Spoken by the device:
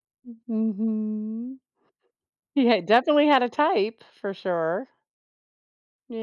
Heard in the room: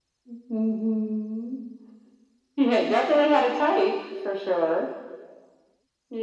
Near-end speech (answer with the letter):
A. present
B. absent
B